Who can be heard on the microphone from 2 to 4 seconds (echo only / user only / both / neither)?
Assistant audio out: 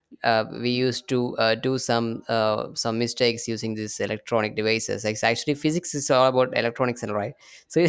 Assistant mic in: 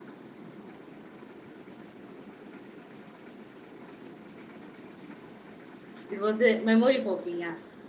neither